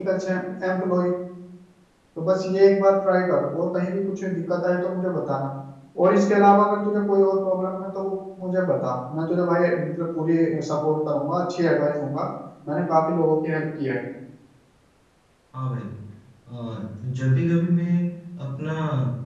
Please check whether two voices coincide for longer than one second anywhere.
No

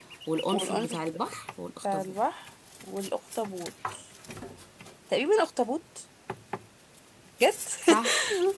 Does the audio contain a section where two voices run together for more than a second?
No

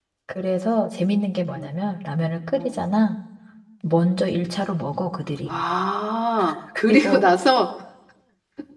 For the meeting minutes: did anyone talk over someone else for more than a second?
No

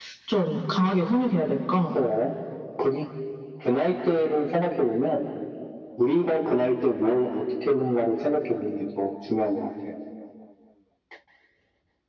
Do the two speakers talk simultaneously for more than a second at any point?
No

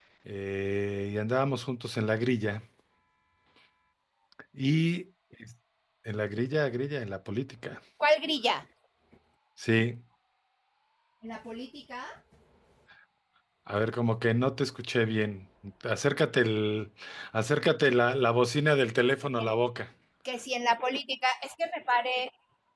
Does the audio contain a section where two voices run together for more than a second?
No

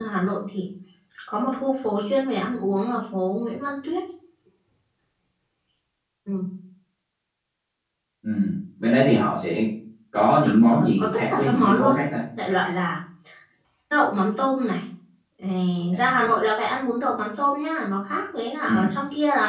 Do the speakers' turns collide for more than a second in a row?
Yes, from 10.7 s

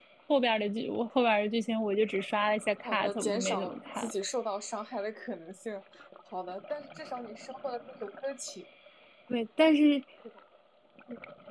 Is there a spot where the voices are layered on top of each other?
Yes, from 2.8 s

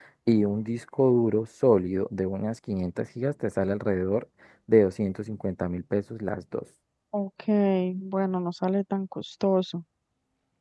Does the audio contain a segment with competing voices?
No

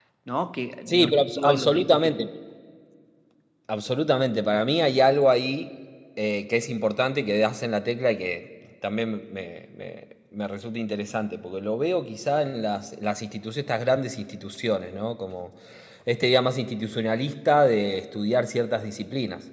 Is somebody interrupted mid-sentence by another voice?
Yes, from 0.9 s

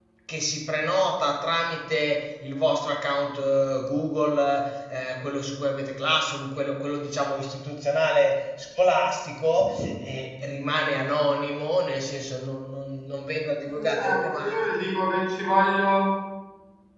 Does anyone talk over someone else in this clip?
Yes, from 13.7 s

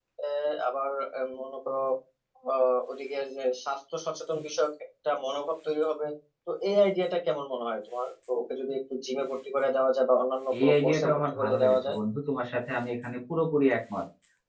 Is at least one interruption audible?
Yes, from 10.5 s

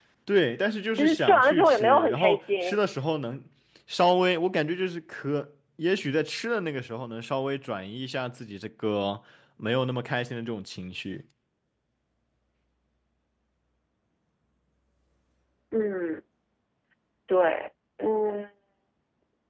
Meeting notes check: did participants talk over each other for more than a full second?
Yes, from 0.9 s

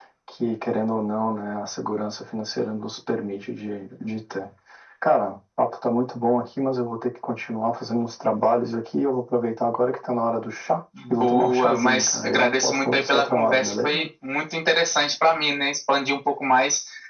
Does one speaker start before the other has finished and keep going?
Yes, from 10.9 s

